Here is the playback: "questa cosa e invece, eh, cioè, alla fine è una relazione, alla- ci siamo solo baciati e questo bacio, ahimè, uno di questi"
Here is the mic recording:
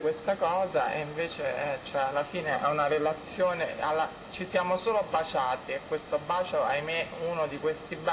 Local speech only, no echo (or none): none